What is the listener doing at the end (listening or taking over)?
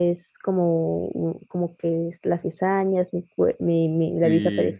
listening